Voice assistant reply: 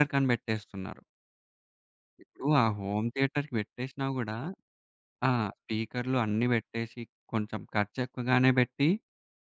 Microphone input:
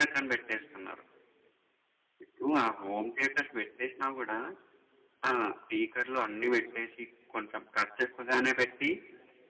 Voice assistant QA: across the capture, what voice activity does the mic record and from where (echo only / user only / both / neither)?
echo only